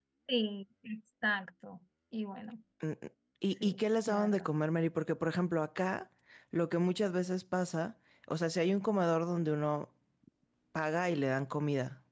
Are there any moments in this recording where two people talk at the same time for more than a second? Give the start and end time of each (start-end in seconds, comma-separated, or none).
none